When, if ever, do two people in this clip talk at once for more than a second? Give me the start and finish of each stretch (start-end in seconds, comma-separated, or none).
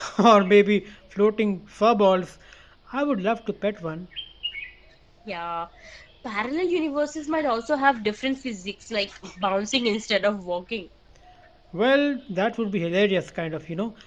none